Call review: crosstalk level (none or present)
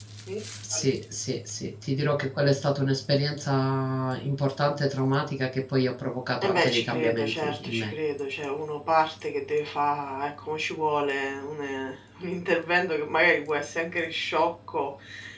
present